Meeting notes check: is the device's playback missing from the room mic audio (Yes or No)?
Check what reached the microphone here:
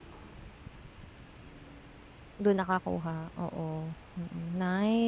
Yes